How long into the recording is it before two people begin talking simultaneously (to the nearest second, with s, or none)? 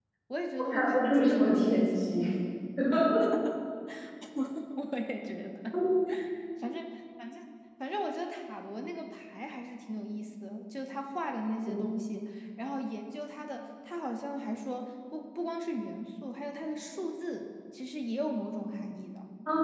1 s